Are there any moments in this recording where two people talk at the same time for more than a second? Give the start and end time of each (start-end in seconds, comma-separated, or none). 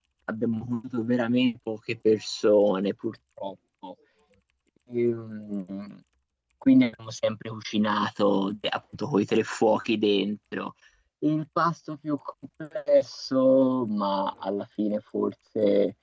none